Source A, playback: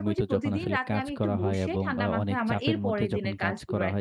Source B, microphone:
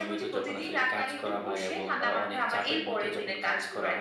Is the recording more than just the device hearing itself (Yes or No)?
No